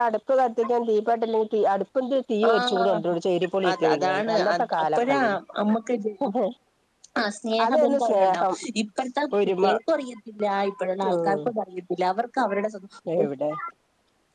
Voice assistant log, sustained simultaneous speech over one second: present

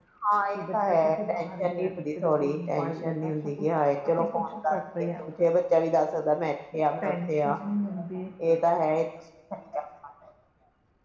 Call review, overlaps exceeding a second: present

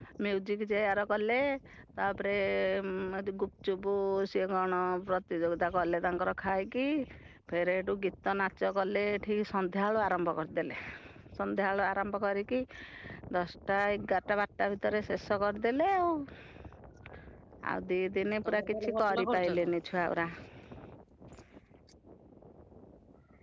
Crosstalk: present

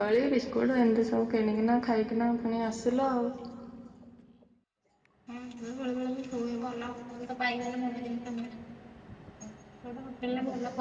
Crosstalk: none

